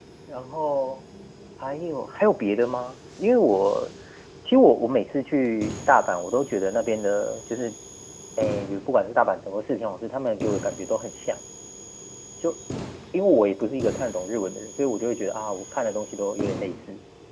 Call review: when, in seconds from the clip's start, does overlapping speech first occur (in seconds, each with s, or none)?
none